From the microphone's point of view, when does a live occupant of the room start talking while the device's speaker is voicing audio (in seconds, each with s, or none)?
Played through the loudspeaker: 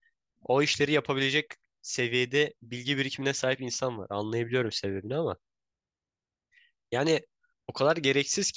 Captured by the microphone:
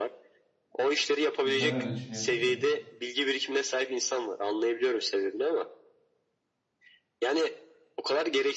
1.4 s